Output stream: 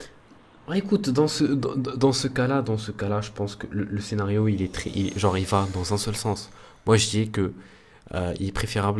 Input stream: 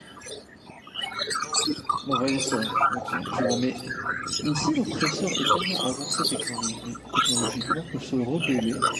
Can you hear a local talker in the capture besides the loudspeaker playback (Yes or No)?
Yes